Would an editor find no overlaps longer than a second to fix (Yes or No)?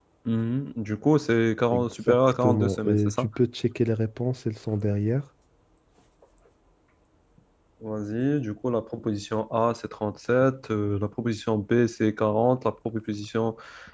No